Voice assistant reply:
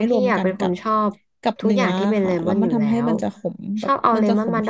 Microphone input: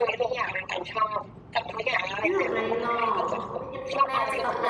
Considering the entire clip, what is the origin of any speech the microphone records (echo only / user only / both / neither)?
both